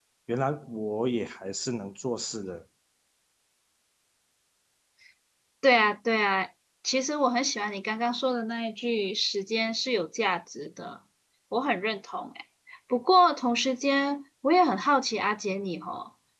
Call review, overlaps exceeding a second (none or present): none